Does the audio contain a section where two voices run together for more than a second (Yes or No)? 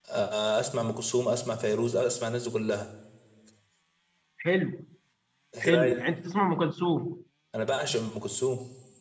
No